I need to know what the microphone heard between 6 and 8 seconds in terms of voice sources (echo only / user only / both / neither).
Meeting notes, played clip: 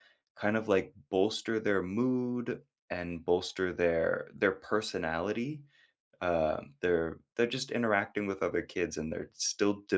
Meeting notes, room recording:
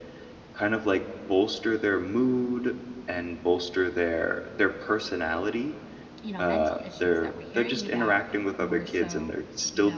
both